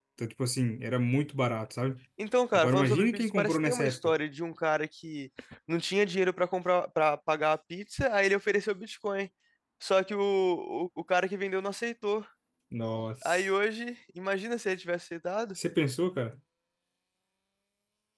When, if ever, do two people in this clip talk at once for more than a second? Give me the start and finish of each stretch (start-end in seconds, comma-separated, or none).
2.5-4.1